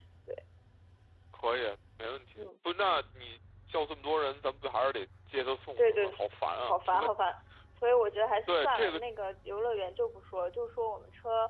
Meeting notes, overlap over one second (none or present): none